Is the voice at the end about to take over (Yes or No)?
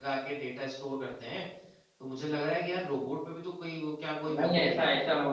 Yes